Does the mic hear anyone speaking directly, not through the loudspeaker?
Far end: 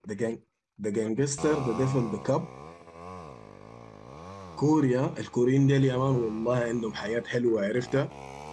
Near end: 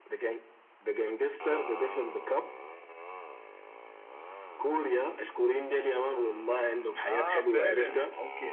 Yes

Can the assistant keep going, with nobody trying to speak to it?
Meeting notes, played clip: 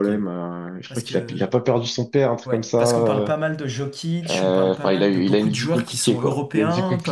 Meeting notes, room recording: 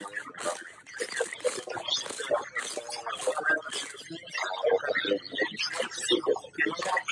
Yes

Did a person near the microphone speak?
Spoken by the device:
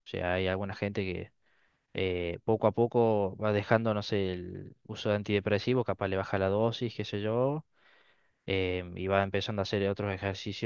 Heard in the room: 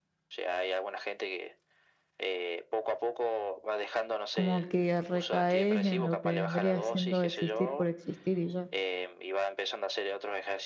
Yes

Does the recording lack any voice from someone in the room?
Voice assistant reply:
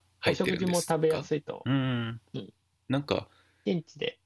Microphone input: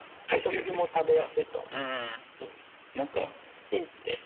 Yes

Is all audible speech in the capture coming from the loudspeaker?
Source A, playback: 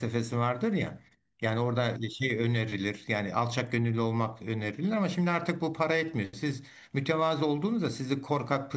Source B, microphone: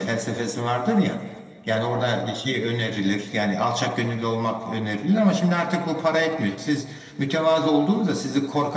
Yes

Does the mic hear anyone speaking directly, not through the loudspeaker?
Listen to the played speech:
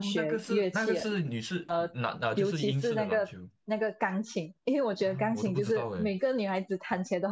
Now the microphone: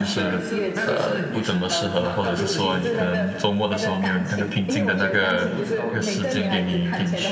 Yes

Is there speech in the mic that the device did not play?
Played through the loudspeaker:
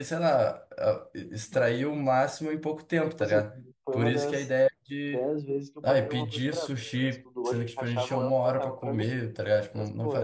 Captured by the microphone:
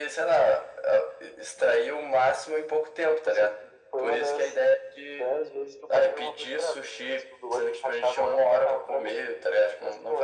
No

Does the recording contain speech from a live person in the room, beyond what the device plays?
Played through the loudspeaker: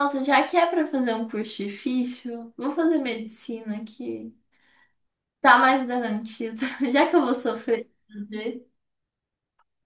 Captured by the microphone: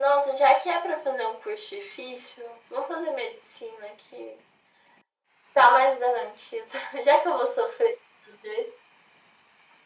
No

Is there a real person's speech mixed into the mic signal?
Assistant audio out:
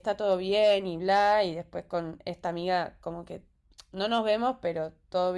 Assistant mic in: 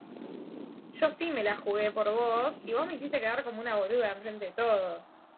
Yes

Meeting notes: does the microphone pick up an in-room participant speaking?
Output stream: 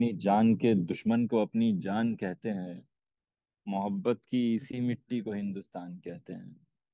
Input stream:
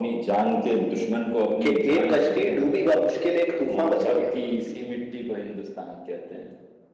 Yes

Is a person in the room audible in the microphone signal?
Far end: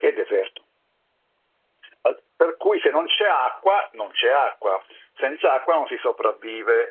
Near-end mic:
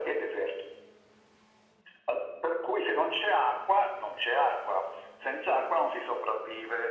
No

